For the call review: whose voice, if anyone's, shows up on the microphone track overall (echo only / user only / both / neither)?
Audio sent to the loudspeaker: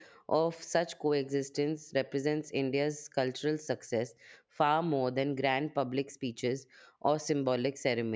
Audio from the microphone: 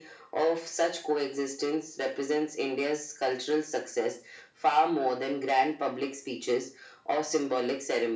echo only